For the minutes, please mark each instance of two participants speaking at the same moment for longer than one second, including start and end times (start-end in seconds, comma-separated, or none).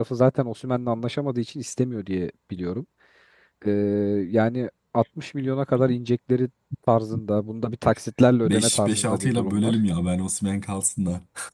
8.4-9.8